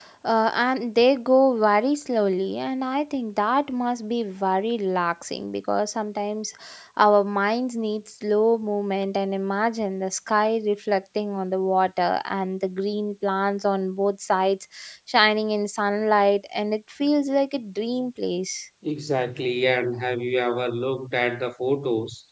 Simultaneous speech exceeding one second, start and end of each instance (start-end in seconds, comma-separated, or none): none